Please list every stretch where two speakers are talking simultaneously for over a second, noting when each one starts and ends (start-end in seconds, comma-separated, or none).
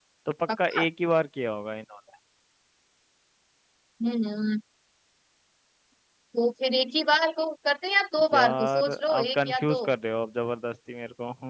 8.3-9.8